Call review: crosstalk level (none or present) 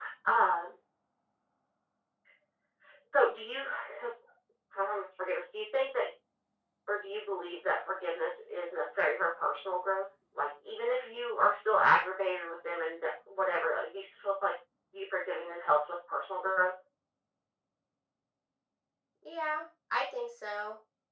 none